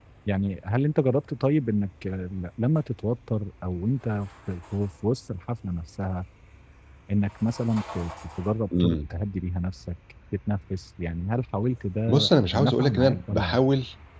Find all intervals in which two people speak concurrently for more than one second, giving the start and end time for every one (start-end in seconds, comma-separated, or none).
12.1-13.6